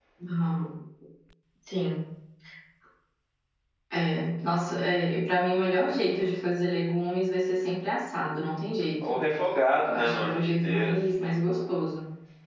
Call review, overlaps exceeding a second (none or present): present